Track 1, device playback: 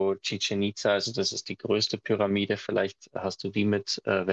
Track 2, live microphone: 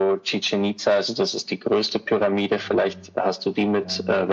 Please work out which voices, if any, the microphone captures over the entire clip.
both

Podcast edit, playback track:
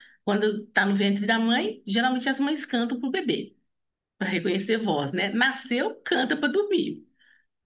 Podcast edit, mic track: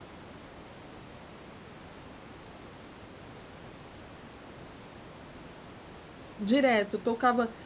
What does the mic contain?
user only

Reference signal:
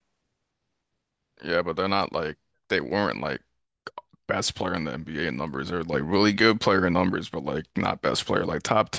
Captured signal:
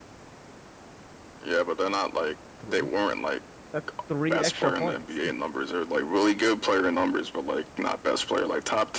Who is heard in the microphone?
both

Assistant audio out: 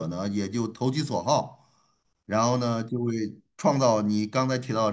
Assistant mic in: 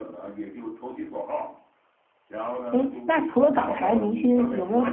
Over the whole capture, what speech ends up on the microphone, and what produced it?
both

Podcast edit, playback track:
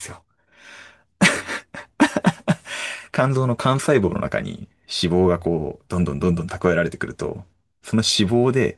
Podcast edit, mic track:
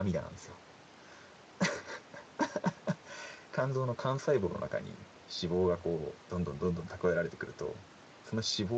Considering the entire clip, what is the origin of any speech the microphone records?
echo only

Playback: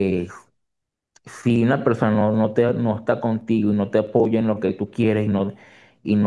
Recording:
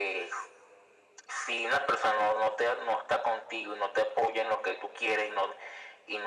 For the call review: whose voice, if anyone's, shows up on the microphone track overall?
echo only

